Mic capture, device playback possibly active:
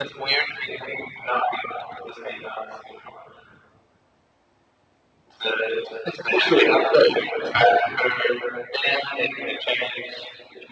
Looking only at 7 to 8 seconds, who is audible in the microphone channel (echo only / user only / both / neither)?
echo only